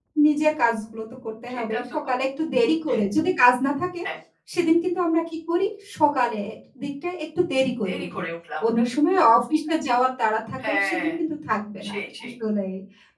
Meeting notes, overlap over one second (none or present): none